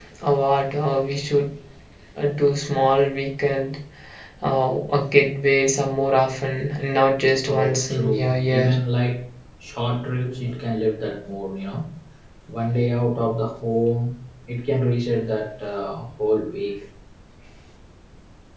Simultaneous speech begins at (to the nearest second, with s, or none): 7 s